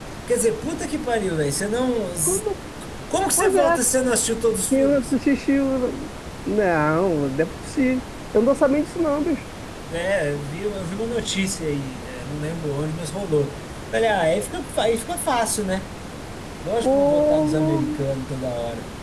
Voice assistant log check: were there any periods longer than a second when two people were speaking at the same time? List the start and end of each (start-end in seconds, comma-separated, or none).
16.8-18.0